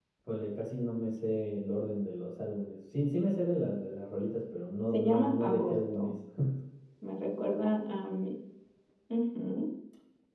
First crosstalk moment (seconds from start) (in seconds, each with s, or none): 4.9 s